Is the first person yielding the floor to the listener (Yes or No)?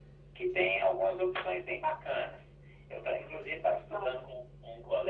No